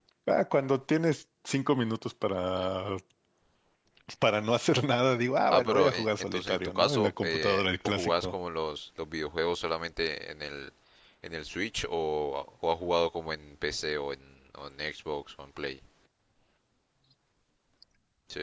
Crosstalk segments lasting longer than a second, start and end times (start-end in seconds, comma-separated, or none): 5.5-8.3